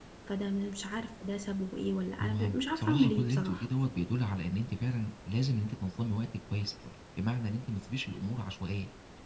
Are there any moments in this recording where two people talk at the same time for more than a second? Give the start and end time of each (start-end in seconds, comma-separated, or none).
2.2-3.6